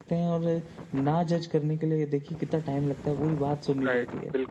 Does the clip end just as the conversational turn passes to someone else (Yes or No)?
Yes